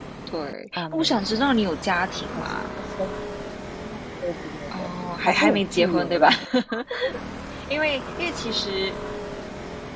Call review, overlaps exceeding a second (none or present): present